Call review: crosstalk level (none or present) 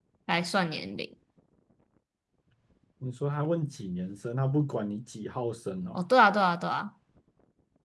none